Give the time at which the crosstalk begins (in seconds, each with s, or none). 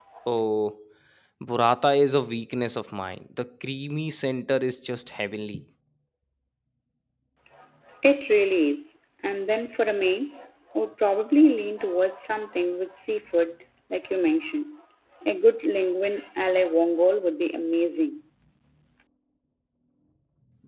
none